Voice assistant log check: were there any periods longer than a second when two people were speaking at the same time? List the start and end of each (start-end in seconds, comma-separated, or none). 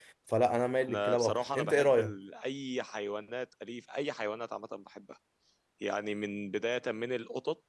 0.9-2.1